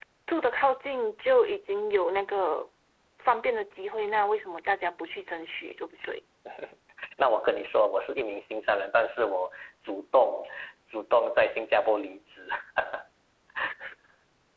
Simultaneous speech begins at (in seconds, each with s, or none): none